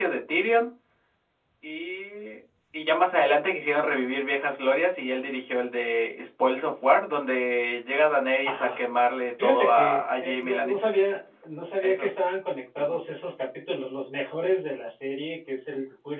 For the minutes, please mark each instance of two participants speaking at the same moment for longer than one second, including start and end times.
9.4-10.9

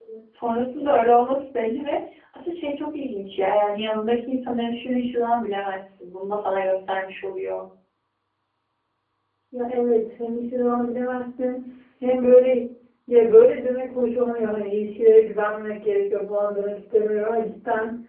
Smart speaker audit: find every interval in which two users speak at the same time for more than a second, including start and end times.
none

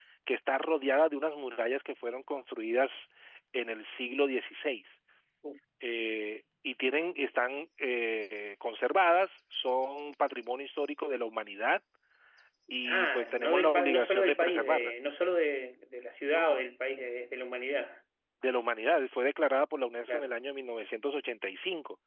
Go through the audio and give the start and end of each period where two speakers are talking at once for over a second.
12.8-14.9

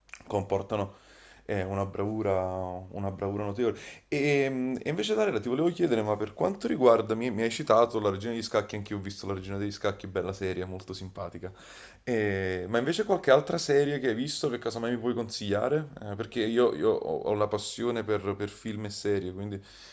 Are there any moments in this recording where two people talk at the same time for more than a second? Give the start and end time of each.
none

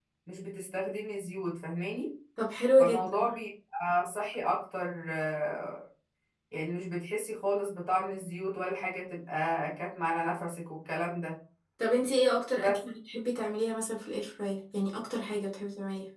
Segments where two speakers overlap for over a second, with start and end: none

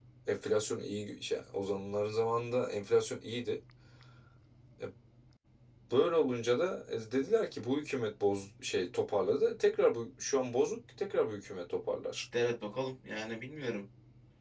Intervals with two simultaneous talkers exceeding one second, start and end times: none

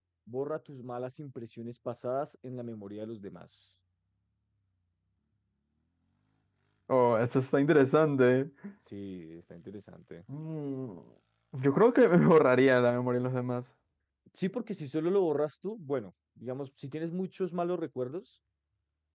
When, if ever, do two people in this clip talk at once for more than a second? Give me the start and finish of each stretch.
none

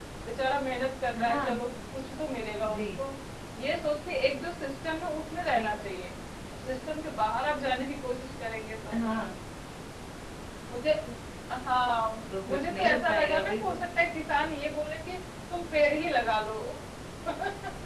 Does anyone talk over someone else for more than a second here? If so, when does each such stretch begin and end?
12.5-13.8

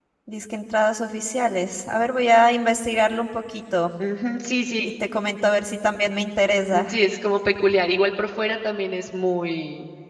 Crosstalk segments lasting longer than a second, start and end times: none

